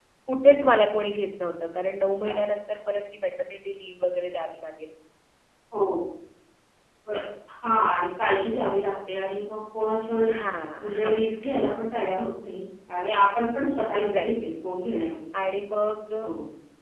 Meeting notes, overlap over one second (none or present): none